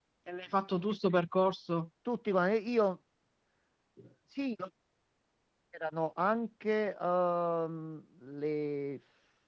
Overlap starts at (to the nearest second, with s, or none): none